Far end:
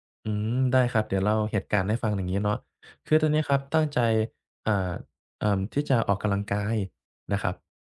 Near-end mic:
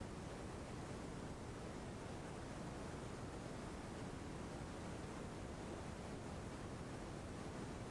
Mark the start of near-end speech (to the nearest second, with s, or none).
none